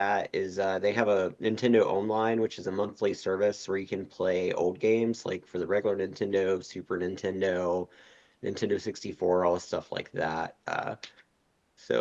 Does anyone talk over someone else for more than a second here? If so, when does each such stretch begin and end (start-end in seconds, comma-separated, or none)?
none